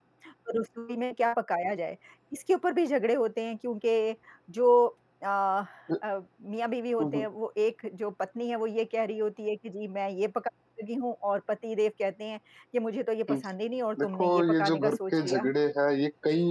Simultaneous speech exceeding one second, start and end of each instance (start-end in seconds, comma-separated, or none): 14.0-15.5